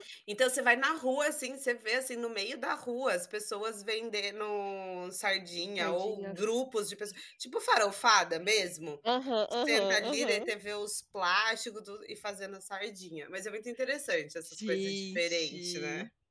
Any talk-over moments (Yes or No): Yes